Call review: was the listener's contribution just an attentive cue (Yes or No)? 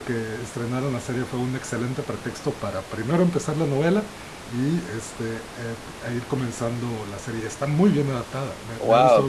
No